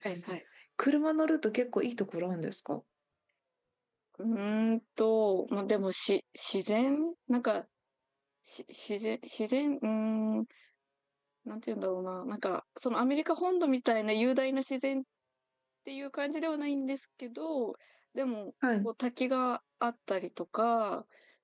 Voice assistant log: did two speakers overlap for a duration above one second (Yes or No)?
No